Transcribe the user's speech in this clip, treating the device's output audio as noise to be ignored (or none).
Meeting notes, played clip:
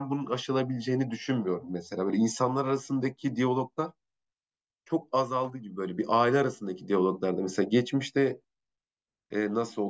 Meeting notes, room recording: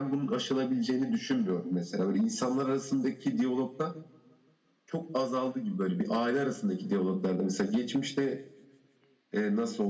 none